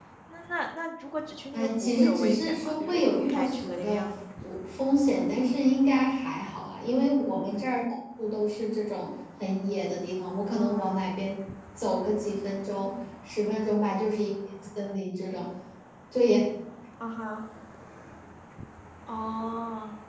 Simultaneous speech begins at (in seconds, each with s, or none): 1.5 s